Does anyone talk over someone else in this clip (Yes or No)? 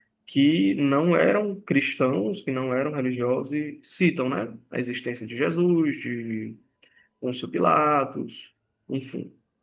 No